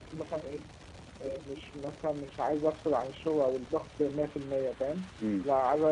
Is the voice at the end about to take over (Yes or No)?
No